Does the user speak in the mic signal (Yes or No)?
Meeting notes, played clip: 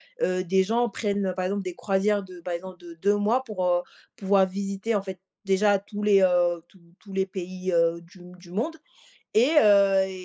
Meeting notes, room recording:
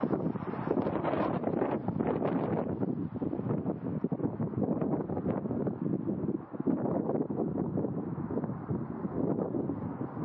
No